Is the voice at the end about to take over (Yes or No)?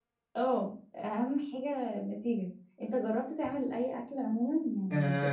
Yes